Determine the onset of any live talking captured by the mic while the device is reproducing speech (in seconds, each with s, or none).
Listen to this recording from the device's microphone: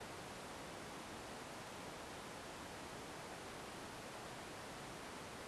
none